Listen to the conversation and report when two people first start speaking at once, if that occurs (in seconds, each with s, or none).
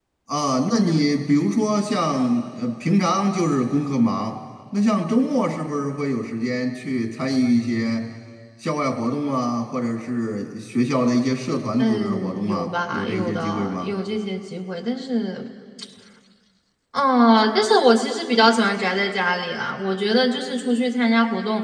11.8 s